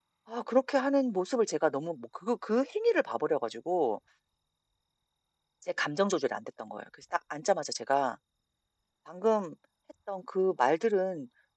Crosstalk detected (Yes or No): No